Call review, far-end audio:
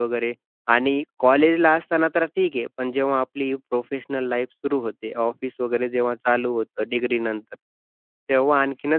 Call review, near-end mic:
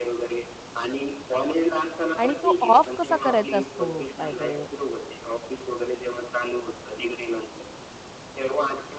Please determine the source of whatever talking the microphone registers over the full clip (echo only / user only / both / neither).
both